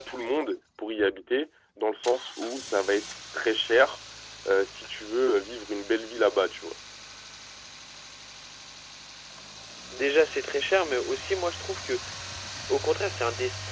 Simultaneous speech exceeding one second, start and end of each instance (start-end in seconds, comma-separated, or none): none